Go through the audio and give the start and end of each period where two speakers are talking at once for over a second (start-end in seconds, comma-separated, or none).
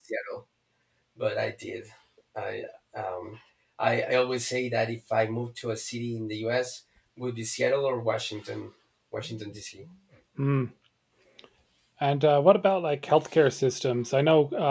none